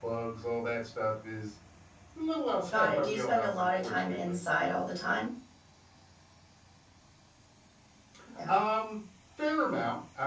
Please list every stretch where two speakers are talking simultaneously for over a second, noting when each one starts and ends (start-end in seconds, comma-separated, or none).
2.7-4.4